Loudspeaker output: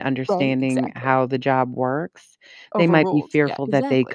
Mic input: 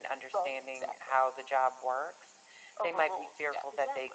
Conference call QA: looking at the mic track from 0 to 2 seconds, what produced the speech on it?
echo only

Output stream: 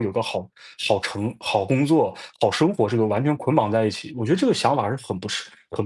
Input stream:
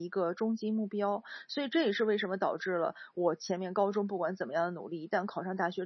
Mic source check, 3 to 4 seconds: user only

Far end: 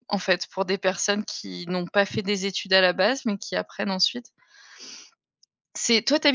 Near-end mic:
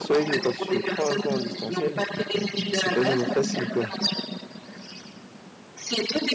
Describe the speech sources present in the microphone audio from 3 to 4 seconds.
both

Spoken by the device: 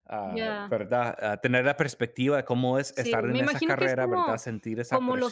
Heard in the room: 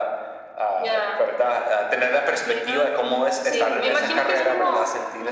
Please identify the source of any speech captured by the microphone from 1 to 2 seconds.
echo only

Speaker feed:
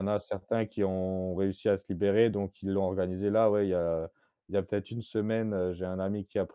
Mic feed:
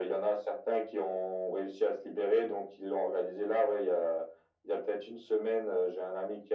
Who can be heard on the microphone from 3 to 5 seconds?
echo only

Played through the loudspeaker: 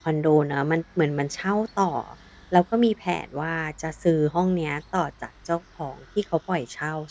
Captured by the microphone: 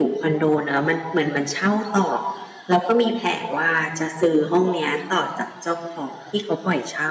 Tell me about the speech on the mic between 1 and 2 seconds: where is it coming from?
echo only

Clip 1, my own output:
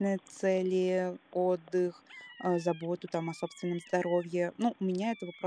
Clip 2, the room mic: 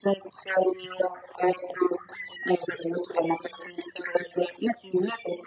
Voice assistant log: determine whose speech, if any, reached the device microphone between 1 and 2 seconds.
echo only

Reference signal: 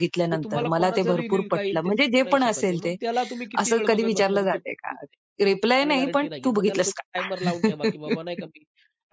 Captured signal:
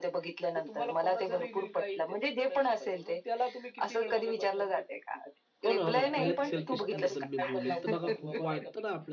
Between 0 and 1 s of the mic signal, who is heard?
echo only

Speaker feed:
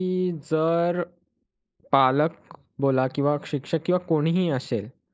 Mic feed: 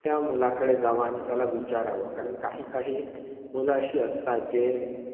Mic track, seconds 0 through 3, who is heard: user only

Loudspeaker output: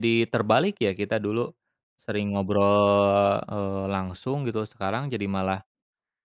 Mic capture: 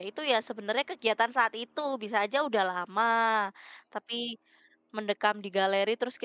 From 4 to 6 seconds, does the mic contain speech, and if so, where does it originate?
user only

